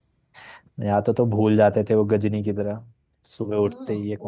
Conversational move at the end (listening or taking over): taking over